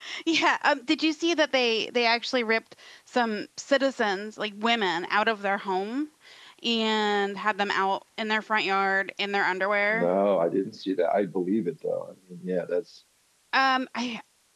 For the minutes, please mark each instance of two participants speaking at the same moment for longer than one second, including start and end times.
none

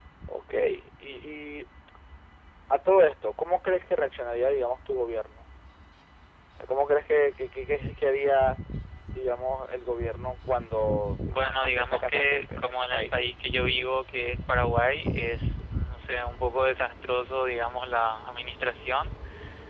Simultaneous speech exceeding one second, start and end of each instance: 11.3-13.2

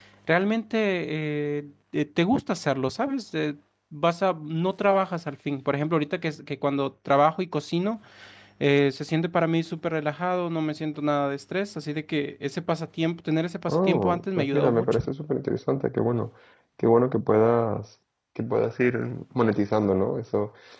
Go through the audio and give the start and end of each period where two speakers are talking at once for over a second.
13.7-15.0

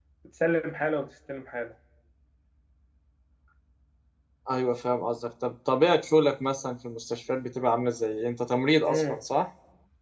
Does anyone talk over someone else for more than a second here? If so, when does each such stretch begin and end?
none

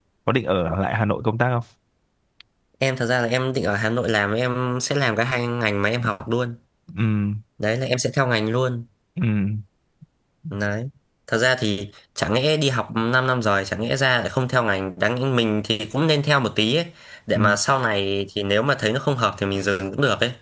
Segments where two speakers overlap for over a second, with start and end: none

